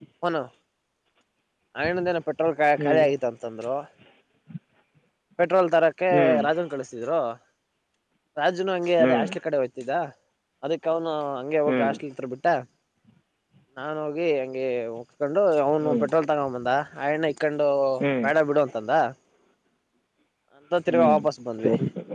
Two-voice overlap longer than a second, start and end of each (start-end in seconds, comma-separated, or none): none